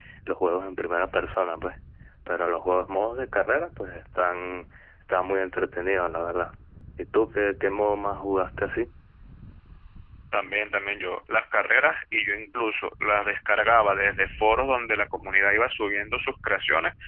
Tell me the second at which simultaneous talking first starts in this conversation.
none

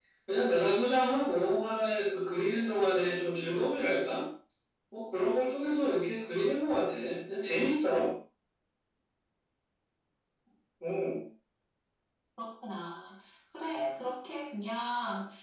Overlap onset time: none

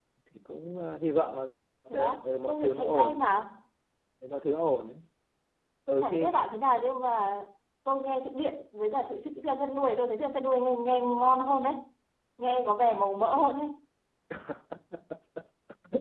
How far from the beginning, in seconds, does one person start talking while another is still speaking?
2 s

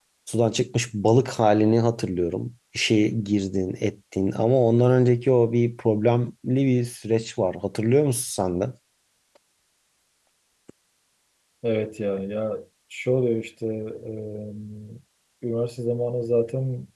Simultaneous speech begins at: none

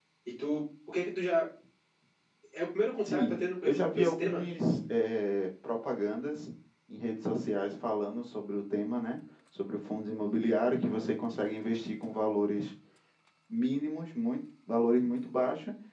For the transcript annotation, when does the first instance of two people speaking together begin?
3 s

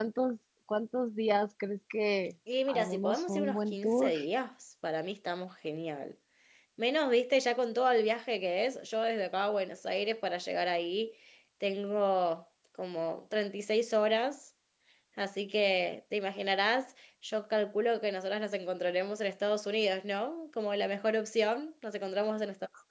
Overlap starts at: 2 s

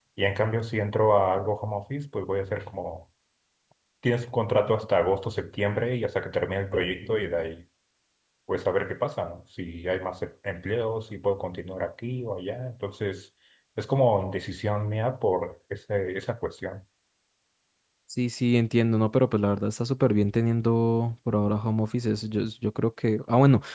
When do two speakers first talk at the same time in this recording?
none

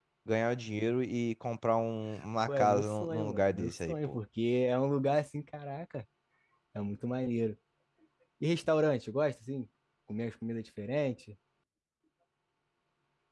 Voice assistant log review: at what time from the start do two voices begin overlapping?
2 s

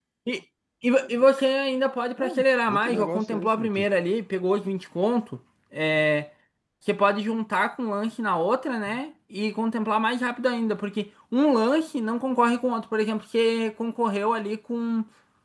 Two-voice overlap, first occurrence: 2 s

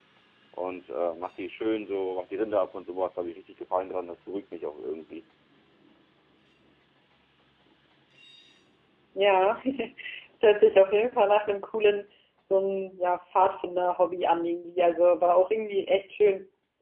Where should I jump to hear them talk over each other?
none

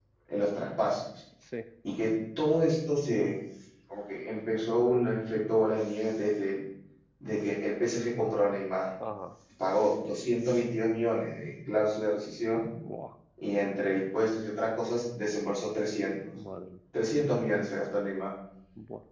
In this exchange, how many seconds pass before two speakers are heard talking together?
none

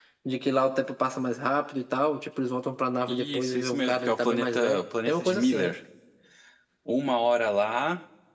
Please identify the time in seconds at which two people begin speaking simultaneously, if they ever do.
3 s

